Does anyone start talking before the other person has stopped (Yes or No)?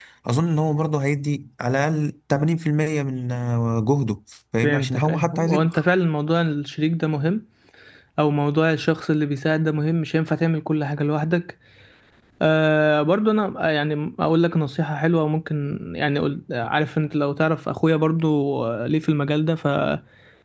Yes